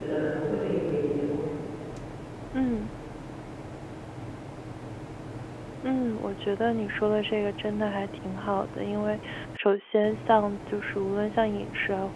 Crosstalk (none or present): none